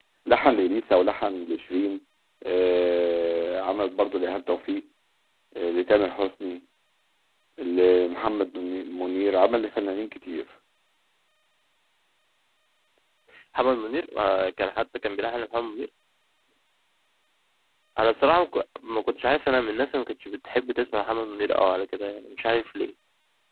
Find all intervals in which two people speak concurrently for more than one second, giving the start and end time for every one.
none

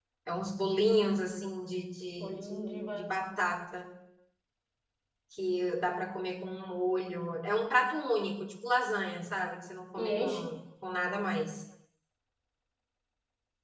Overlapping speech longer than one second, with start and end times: 2.2-3.4

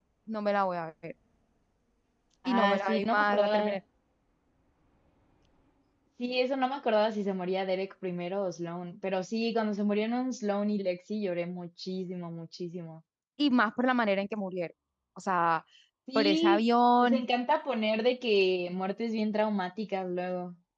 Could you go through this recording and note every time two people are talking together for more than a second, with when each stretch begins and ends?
2.5-3.8

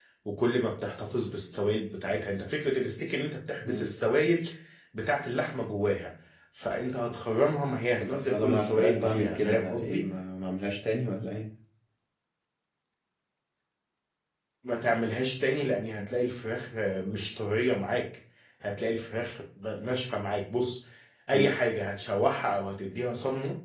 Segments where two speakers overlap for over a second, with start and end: 8.0-10.1

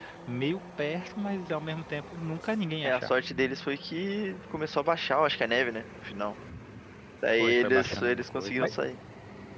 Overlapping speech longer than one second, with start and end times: 7.4-8.7

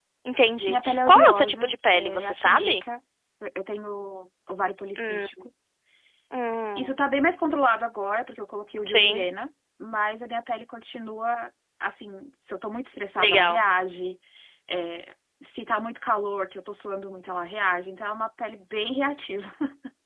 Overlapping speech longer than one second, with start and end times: 0.7-2.8

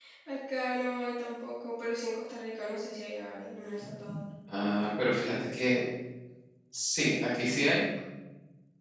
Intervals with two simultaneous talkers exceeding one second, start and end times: none

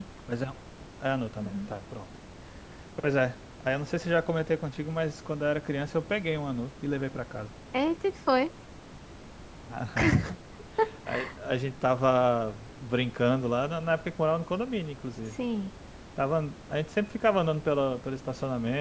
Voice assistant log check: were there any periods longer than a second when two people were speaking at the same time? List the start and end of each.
none

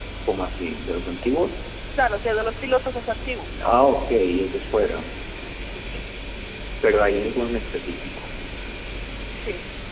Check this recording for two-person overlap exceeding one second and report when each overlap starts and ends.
none

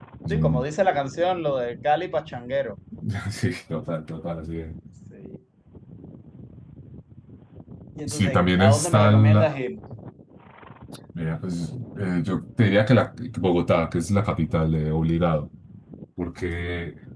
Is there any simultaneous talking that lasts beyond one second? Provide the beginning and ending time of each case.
8.1-9.6

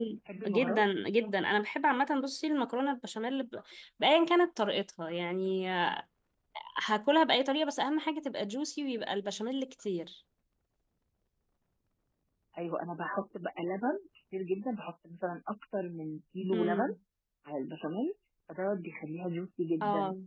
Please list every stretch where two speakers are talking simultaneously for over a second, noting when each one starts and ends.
none

